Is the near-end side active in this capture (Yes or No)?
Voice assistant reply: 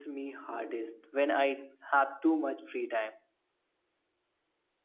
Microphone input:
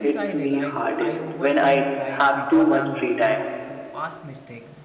Yes